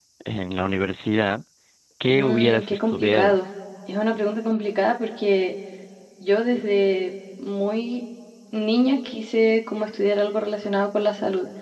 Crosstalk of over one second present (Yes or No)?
Yes